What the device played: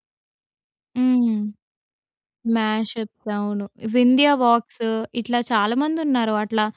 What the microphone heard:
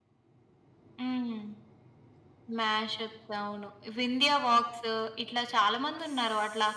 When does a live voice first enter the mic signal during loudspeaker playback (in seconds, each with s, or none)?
none